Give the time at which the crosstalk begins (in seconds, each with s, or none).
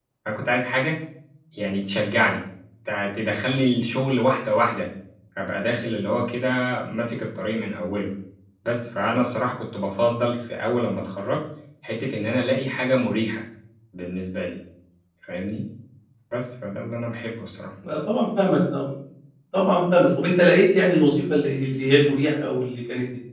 none